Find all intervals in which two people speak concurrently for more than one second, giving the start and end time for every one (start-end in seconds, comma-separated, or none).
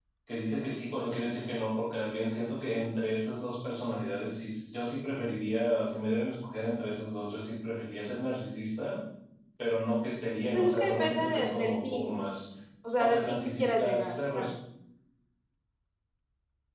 10.5-12.3, 13.0-14.5